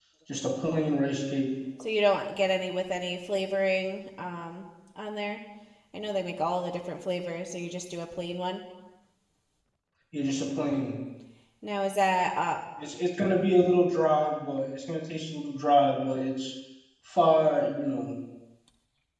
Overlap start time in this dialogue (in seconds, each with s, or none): none